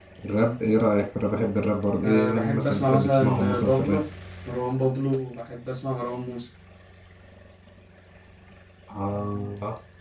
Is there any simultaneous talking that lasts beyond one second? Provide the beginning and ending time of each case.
2.0-4.0

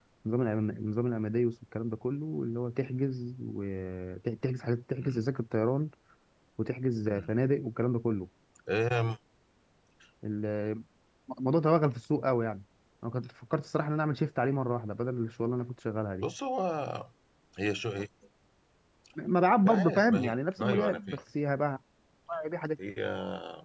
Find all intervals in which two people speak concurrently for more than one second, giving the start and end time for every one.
19.6-21.2

